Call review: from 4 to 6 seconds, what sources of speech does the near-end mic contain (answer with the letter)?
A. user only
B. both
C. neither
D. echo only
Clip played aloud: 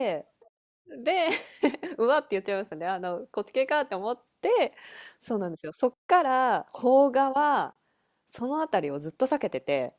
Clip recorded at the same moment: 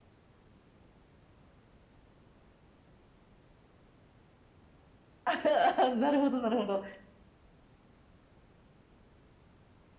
A